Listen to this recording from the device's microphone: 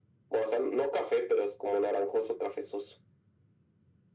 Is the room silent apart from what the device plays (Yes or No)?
Yes